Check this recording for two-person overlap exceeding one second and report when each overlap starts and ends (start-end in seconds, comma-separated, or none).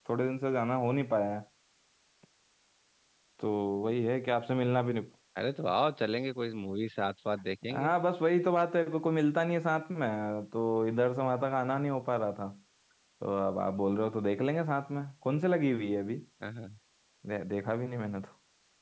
none